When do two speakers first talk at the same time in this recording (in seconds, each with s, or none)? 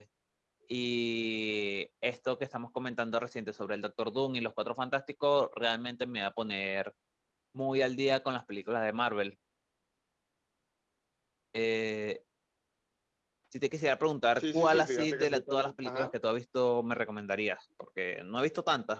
14.4 s